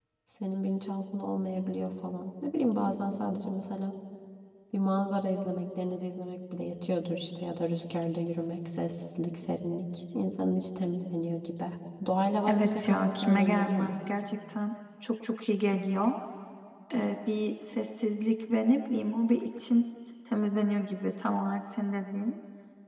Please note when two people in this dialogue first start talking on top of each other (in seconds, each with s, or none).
12.5 s